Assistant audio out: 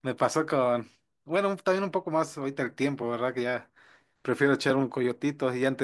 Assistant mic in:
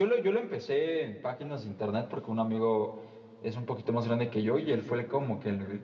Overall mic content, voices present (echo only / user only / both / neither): user only